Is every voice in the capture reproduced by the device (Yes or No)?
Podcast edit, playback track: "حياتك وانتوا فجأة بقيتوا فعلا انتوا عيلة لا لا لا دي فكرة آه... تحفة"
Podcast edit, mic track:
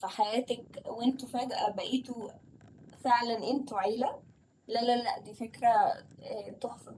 Yes